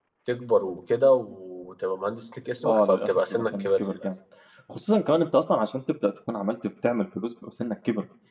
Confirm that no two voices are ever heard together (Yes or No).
No